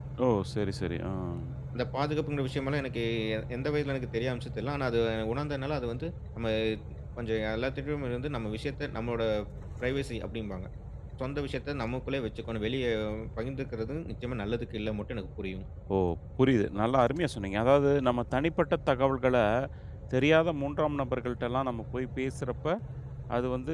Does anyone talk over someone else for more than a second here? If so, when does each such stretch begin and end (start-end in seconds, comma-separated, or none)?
none